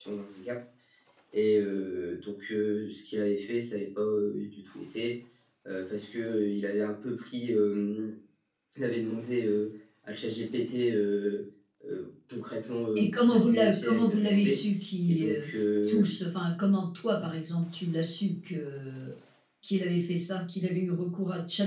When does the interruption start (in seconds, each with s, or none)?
13.0 s